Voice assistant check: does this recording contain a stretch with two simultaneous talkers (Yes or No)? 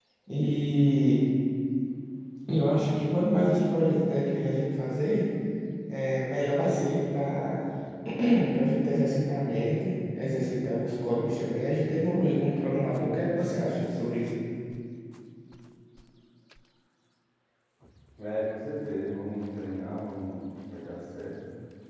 No